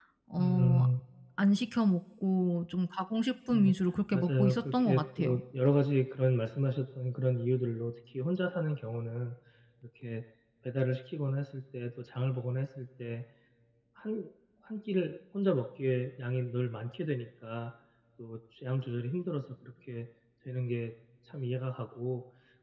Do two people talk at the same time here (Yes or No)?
Yes